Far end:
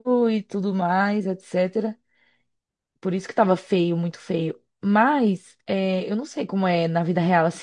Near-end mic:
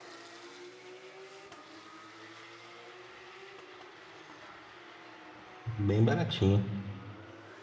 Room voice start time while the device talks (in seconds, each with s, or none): 5.7 s